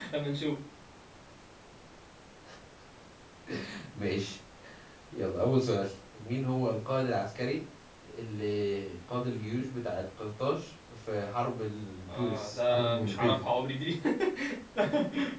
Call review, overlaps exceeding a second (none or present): present